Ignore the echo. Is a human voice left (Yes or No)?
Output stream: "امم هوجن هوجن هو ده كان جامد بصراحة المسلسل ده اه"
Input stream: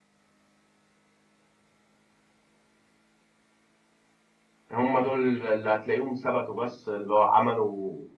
Yes